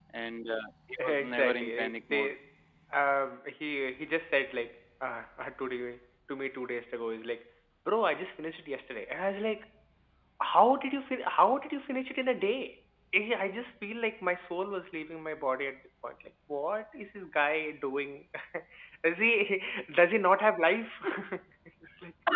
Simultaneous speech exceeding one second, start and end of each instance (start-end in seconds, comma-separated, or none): 1.0-2.3